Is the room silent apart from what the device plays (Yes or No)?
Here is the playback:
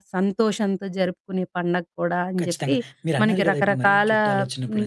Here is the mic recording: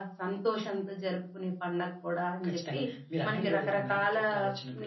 Yes